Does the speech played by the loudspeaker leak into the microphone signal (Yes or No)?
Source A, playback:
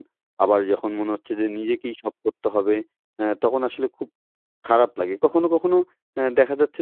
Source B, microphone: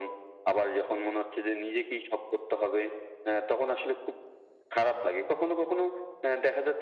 Yes